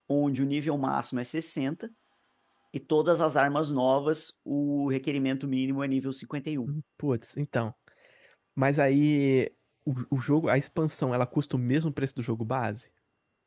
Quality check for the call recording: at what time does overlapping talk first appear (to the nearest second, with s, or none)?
none